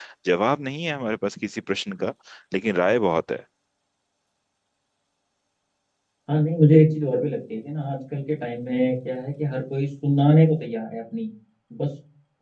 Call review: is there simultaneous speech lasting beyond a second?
No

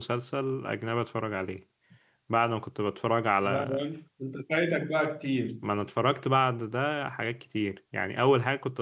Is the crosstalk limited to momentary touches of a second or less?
Yes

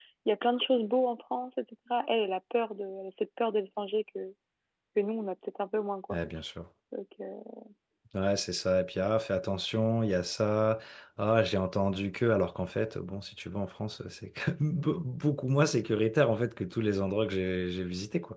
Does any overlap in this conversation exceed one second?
No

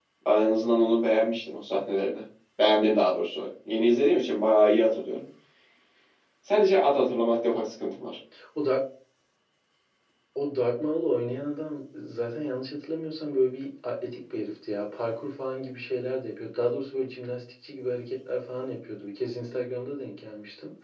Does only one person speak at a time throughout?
Yes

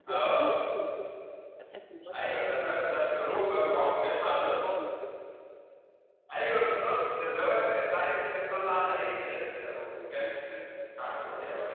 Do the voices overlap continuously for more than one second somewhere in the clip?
Yes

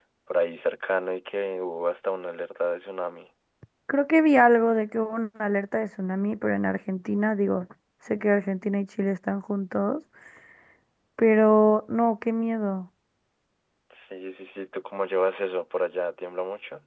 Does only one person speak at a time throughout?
Yes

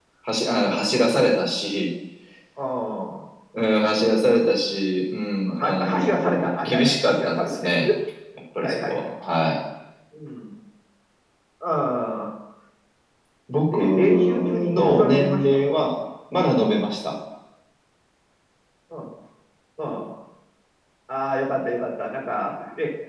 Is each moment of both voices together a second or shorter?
No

